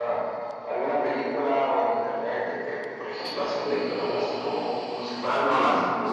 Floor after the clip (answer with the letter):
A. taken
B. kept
A